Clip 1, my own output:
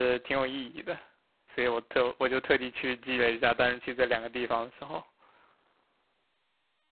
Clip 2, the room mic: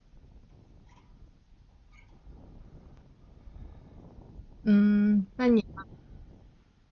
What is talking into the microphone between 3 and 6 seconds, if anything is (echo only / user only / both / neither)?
user only